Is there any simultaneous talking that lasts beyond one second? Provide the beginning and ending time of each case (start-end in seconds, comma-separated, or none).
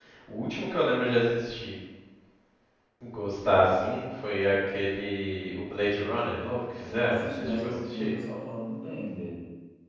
6.9-8.1